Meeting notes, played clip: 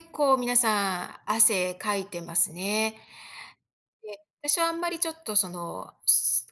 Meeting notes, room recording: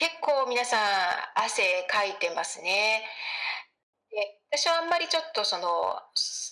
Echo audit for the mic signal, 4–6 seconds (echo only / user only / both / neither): echo only